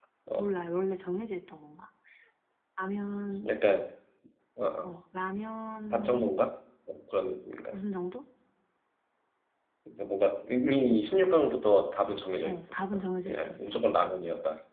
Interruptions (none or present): present